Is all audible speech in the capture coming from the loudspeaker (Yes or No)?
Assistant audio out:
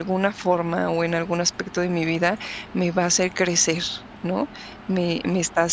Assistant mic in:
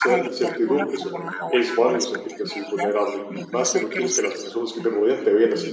No